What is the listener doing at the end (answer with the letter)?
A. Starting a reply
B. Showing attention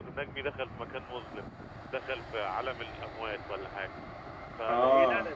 B